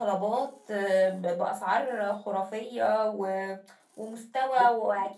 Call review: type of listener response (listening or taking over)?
listening